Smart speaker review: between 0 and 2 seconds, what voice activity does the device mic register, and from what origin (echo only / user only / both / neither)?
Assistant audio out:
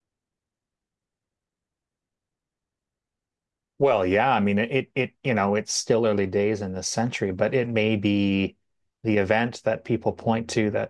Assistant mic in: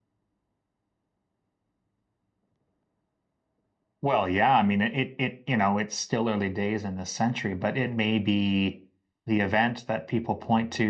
neither